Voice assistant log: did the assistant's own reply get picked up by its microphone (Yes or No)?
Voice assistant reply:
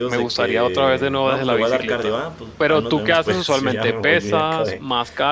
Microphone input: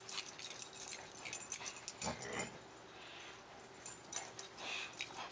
No